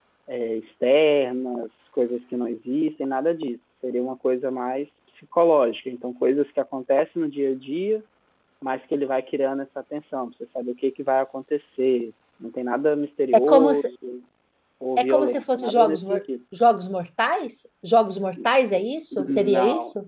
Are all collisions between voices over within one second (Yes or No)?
No